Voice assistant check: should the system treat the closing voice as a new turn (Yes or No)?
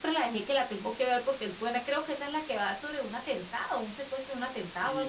Yes